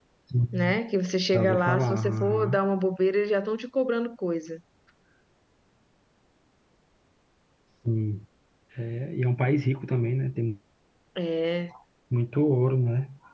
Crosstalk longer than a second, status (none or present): present